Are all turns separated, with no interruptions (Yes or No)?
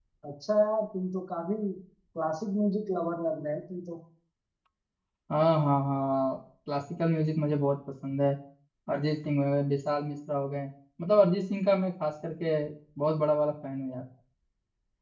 Yes